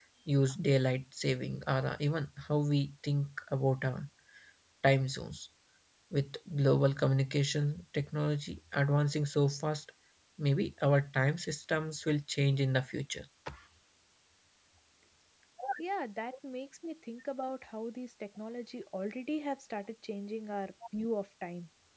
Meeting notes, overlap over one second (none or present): none